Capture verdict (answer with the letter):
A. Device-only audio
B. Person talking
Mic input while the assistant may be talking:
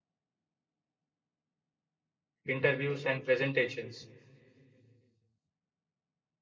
B